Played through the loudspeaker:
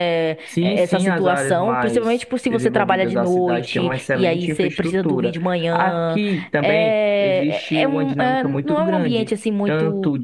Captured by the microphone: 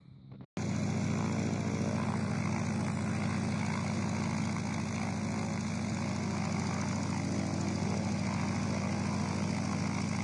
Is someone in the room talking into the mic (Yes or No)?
No